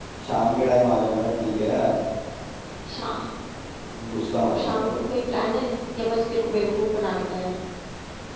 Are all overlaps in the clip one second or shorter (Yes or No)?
Yes